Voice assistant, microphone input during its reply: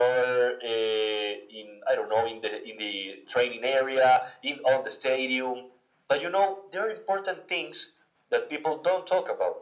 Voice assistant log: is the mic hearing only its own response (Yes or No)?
Yes